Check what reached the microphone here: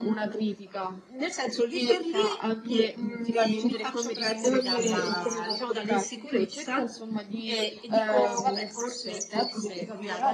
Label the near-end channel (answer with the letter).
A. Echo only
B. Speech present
A